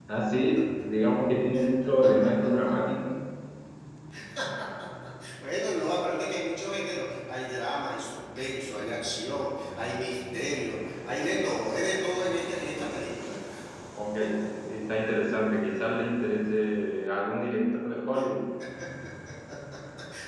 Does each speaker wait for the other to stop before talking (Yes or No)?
Yes